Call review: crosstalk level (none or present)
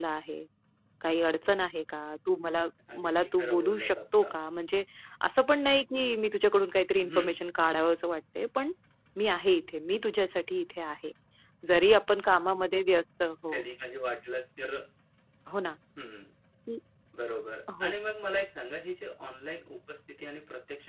present